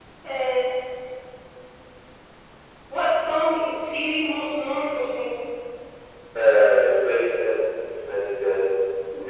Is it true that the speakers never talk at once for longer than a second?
Yes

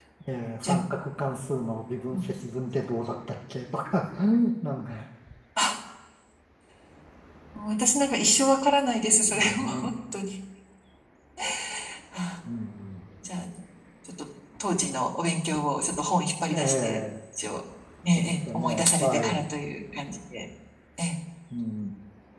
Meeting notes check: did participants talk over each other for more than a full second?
Yes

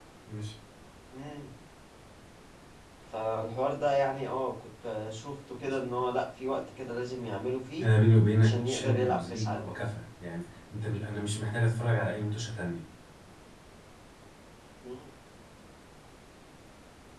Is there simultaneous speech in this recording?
Yes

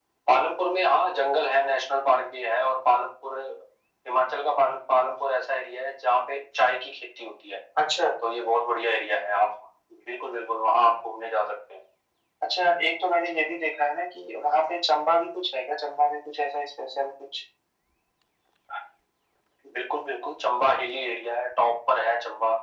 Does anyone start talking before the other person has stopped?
No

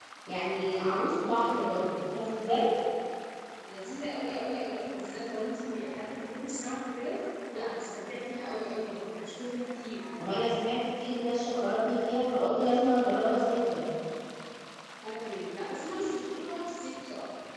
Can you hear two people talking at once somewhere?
No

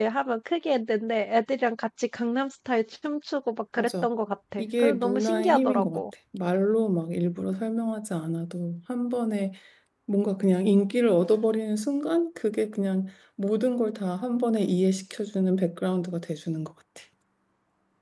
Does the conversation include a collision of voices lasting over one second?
Yes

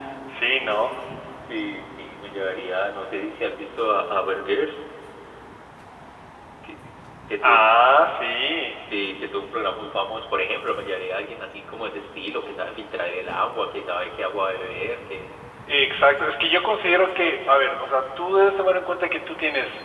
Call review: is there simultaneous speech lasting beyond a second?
No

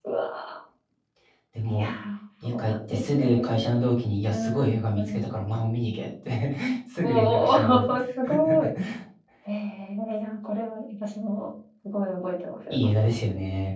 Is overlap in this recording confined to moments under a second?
No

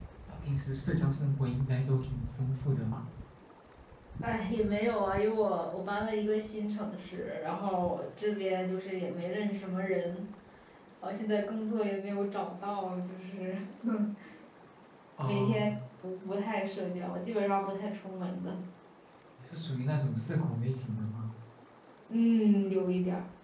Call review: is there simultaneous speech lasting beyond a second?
No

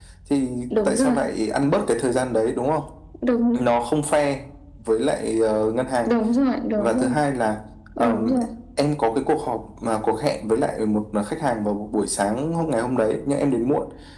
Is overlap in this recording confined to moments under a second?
Yes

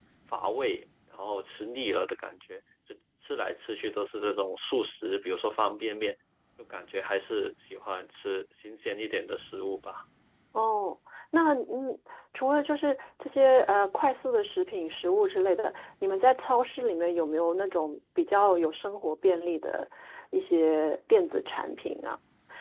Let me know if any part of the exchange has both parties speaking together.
No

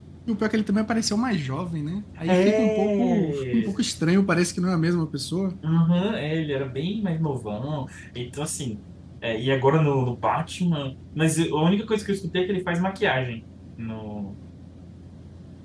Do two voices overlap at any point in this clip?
Yes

